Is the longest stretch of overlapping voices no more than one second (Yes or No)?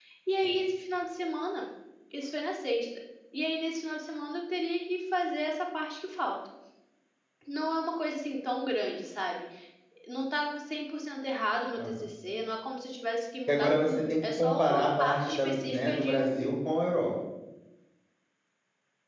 No